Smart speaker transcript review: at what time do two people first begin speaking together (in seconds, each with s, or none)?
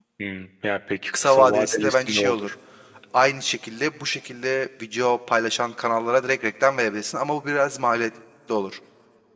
1.2 s